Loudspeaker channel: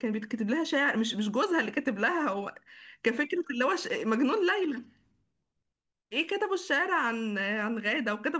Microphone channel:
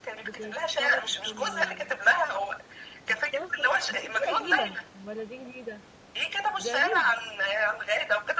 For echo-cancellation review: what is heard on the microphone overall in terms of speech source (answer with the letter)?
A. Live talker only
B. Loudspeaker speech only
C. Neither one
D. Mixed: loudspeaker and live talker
D